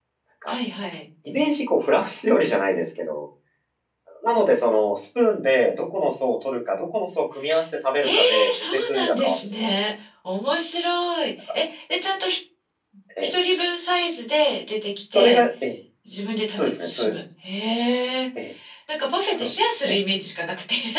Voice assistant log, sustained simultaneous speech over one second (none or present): present